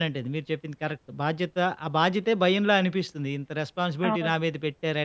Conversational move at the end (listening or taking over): listening